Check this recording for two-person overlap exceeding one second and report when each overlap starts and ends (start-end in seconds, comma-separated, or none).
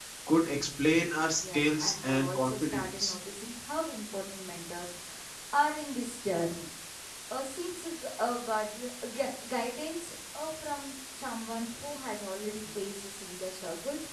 1.5-3.1